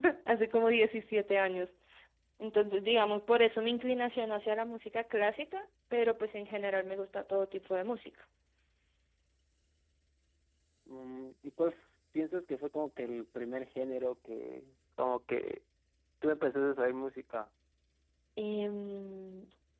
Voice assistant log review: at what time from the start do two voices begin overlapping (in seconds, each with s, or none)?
none